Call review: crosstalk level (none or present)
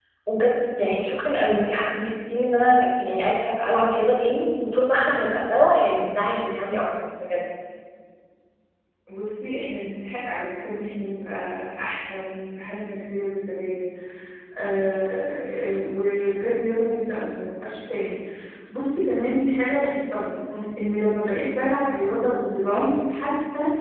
none